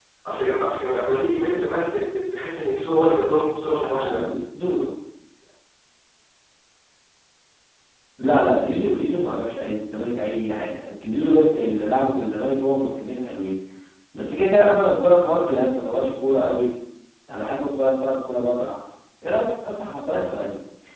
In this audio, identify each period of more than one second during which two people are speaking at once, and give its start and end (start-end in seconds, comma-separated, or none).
none